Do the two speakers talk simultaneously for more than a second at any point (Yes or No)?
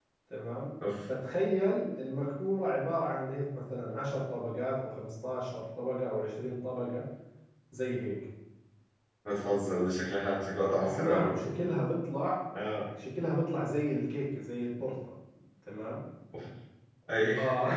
No